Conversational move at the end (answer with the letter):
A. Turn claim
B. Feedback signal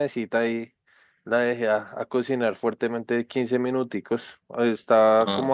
B